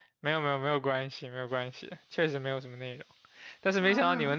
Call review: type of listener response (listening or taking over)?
listening